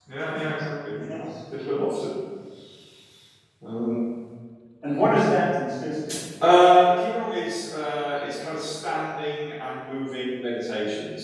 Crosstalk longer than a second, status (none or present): none